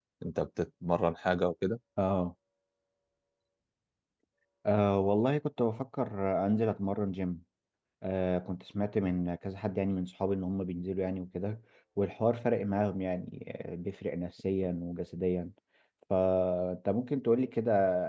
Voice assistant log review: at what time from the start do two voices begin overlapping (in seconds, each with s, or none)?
none